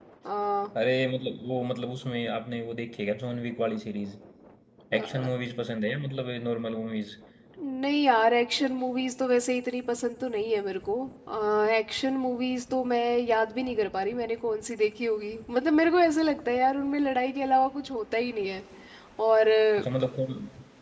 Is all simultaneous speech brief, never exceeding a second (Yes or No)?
Yes